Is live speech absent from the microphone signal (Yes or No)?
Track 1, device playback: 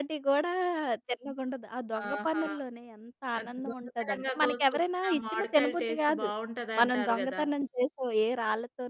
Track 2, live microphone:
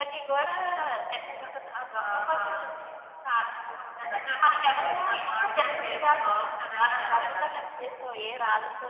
Yes